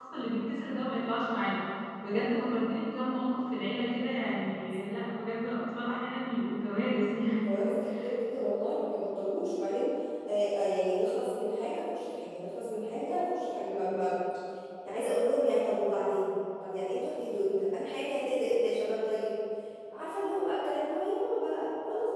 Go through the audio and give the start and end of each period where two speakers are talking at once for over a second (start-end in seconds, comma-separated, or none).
none